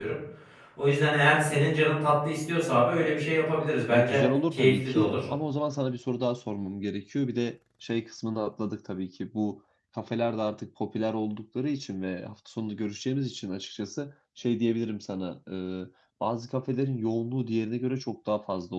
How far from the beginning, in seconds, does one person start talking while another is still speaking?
4 s

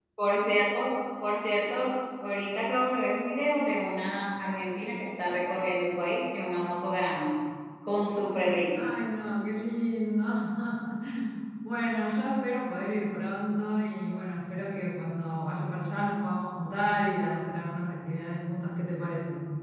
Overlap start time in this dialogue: none

